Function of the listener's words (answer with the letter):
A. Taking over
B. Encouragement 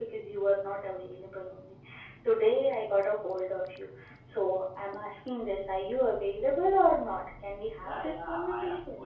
A